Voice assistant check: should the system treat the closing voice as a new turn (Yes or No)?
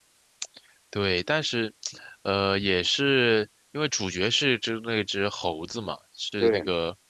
No